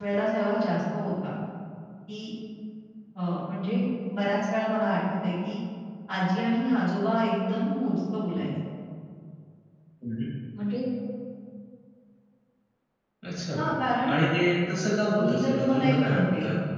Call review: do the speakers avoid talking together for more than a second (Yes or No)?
No